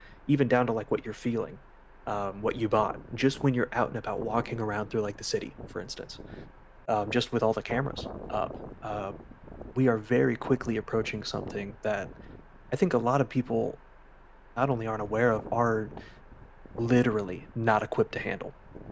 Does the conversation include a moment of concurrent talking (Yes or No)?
No